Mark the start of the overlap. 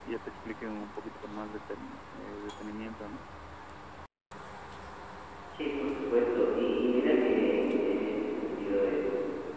none

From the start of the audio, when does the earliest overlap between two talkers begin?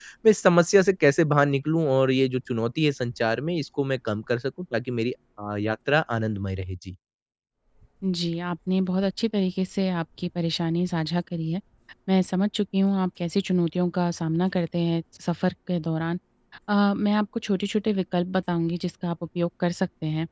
none

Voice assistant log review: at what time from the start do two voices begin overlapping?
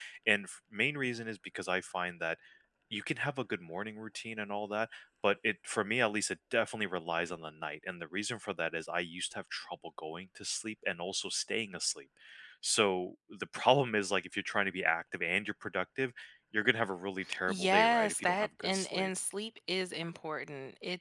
17 s

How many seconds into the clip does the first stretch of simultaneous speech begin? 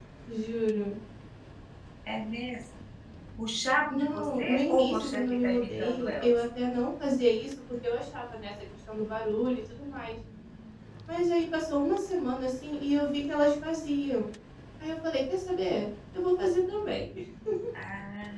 4 s

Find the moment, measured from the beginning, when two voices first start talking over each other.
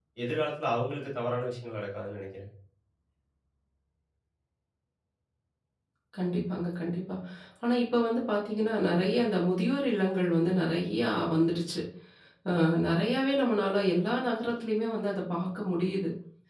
none

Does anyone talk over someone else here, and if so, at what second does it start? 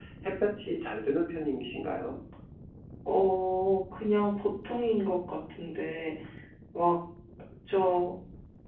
none

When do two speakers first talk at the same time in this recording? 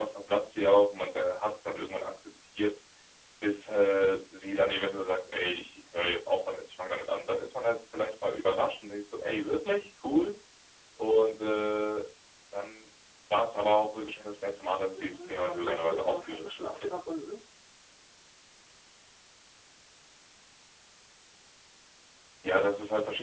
15 s

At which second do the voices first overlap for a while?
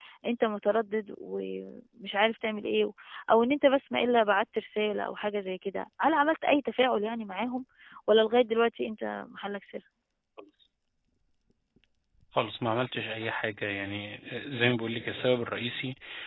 none

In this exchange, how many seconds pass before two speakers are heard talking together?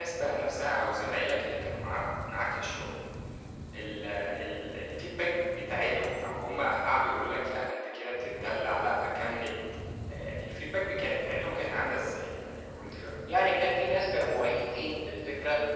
none

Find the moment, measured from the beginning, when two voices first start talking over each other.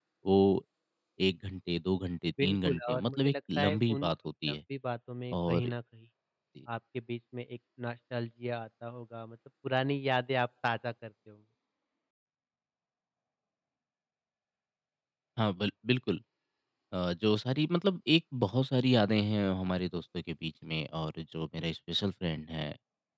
2 s

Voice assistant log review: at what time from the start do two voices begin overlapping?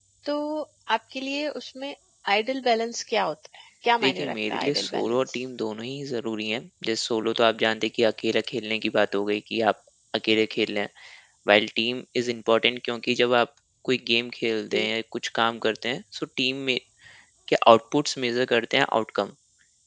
4 s

